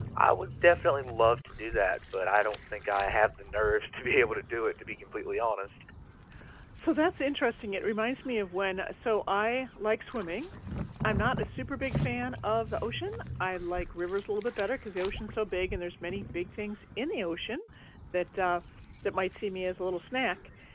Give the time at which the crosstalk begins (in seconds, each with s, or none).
none